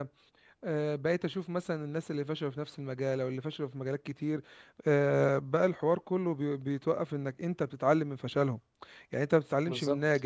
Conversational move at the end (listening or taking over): listening